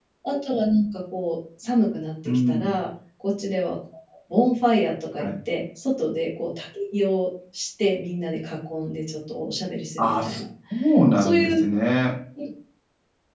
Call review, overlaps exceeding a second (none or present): none